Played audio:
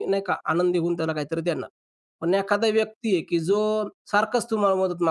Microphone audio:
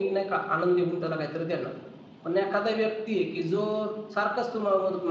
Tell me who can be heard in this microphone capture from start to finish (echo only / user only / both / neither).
echo only